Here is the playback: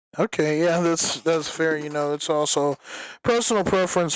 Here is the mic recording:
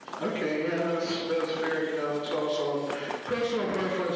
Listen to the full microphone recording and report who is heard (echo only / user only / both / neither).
echo only